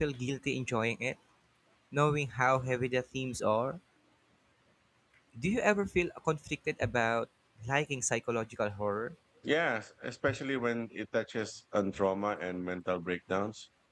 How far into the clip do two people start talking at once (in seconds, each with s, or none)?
none